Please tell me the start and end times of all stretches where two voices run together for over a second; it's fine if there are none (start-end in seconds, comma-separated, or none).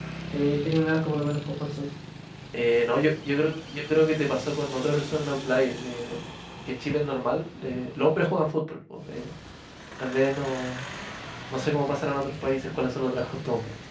none